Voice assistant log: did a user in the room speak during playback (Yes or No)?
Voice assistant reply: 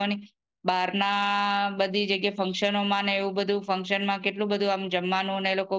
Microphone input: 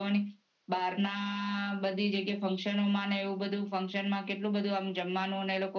No